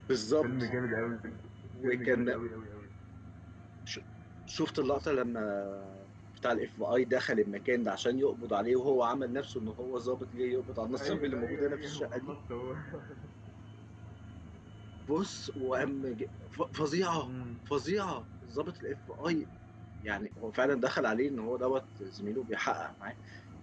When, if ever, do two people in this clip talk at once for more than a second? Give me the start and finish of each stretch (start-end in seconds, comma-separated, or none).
10.9-12.3